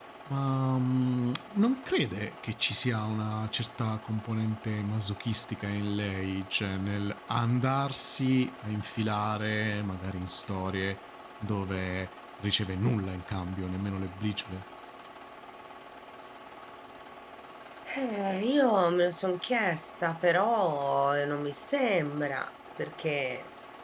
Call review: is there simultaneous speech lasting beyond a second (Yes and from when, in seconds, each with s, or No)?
No